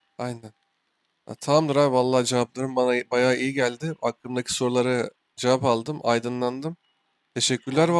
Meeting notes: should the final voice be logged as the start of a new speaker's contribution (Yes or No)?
No